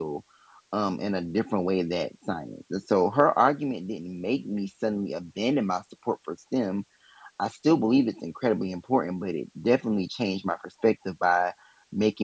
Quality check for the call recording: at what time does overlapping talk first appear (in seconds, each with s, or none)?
none